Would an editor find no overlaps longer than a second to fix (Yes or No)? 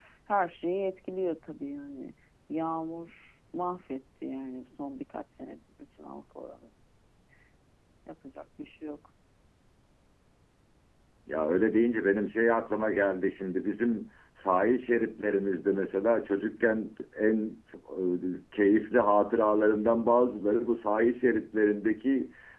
Yes